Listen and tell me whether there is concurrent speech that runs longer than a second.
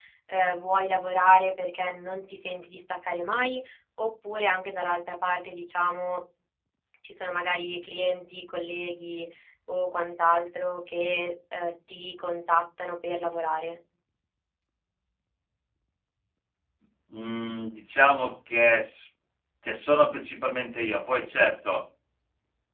No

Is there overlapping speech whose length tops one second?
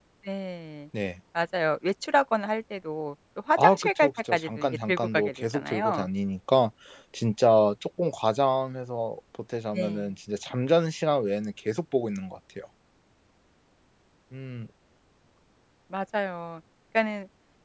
Yes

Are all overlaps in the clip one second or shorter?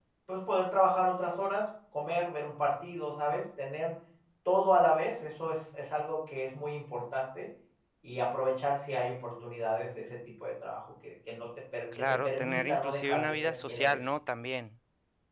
No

